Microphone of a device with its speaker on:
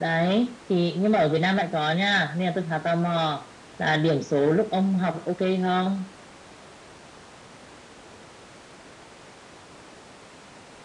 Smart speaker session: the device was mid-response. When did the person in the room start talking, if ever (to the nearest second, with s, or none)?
none